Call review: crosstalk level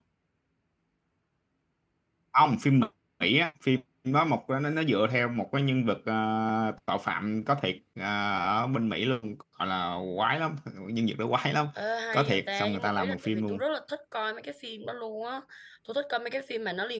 present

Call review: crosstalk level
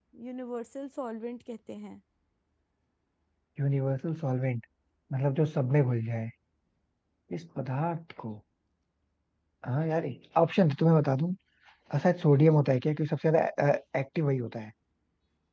none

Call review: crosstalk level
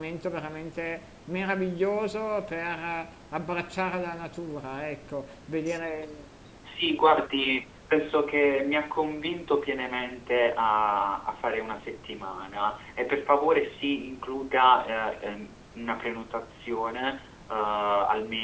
none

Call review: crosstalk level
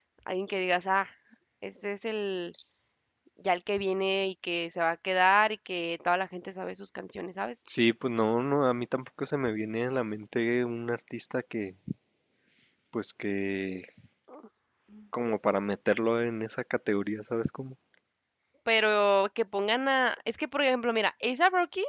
none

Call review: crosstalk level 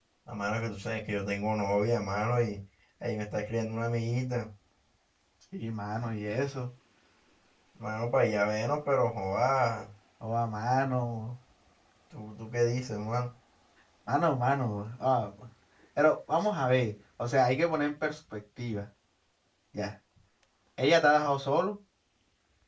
none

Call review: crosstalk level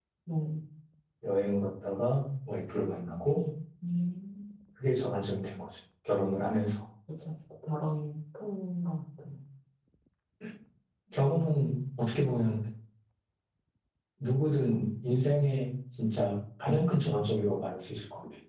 none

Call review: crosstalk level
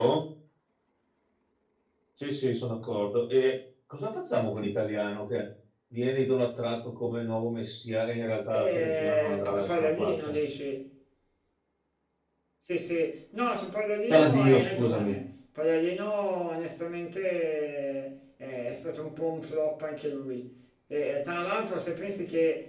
present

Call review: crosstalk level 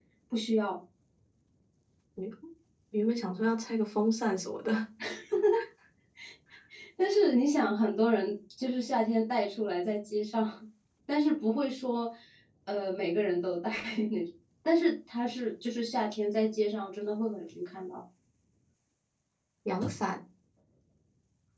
none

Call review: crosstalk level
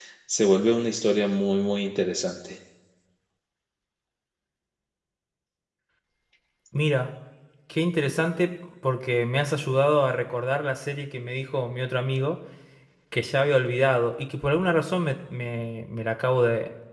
none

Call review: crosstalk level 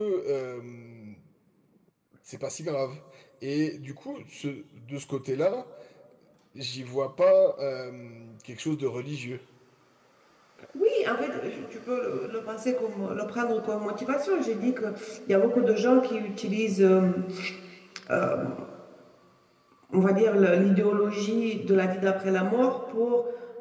none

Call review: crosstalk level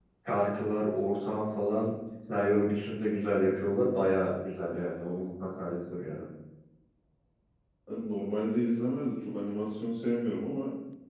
none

